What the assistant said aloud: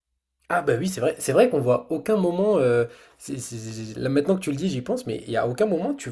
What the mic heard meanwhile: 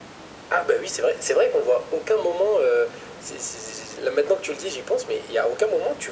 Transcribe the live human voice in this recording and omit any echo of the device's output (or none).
none